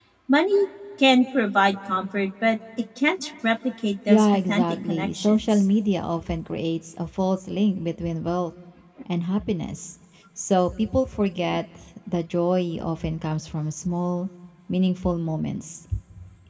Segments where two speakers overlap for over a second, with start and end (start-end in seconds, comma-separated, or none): 4.1-5.6